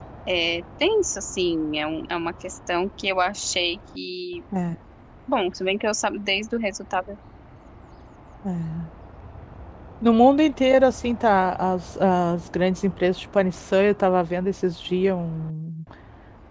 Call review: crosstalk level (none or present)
none